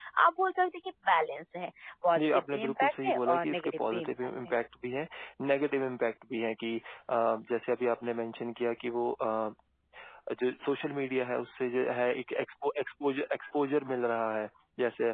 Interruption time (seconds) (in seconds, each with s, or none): 2.2 s